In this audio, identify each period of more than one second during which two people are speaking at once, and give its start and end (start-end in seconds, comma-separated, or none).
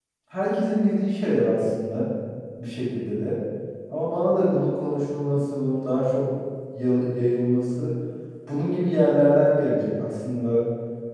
none